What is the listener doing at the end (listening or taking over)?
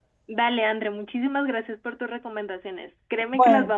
listening